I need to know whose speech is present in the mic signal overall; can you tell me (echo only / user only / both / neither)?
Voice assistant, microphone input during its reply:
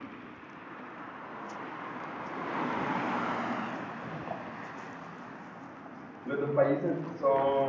user only